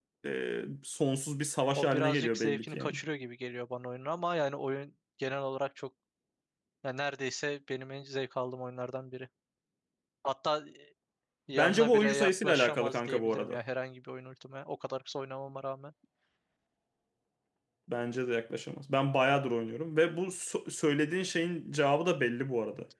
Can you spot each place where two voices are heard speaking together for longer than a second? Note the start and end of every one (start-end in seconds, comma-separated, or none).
1.8-3.0, 11.6-13.6